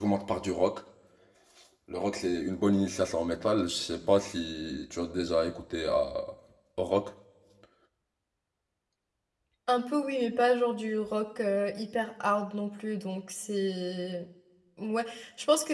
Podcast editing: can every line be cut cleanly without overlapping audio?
Yes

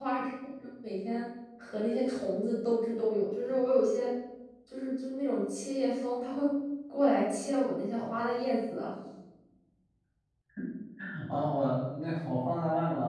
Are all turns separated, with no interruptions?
Yes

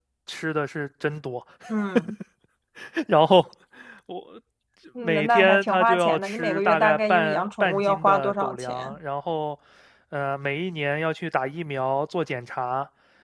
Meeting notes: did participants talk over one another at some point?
Yes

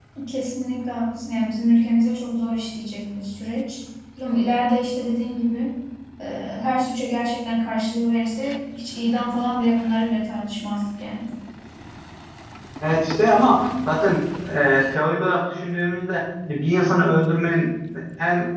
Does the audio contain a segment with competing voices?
No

